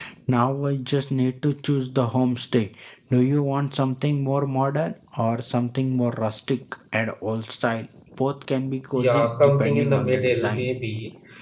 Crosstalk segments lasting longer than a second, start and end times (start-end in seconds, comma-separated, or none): 8.9-10.7